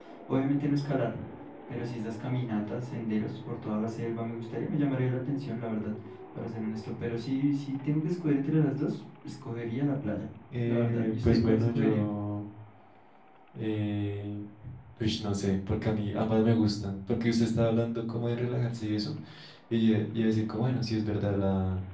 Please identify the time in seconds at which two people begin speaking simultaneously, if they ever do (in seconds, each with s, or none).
10.5 s